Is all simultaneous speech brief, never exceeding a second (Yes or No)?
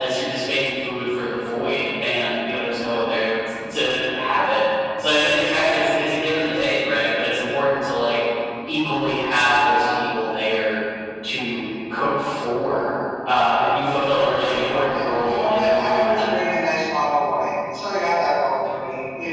No